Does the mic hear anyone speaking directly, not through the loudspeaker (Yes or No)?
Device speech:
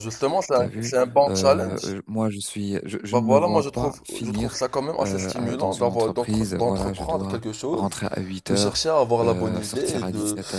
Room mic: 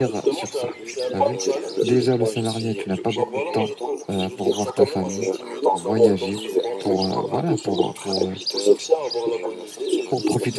Yes